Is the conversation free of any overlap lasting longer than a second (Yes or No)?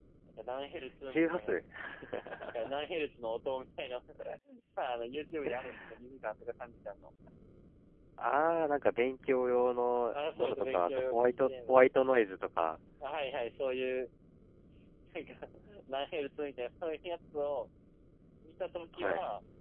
No